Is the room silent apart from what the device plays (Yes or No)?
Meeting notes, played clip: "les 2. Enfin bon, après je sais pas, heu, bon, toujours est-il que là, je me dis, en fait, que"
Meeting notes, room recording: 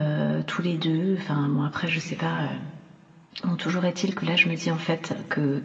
Yes